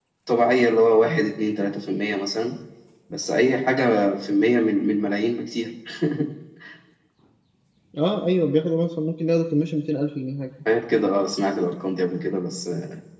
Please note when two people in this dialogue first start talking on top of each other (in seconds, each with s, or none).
none